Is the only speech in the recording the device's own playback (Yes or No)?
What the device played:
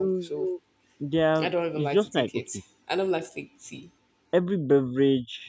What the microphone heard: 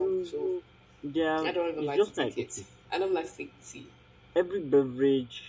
Yes